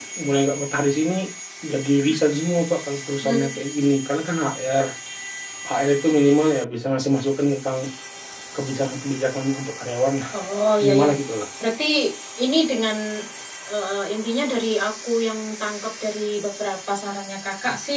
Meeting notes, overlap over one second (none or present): none